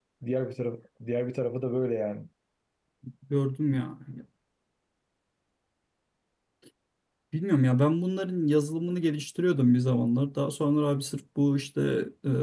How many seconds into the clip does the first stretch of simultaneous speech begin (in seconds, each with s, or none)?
none